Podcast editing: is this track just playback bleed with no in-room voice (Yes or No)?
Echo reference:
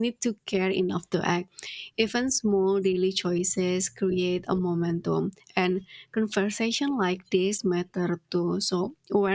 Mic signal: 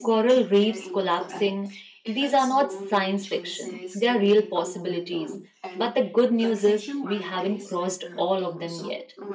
No